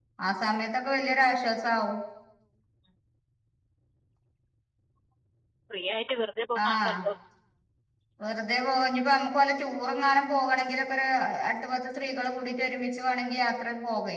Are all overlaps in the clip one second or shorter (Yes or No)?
Yes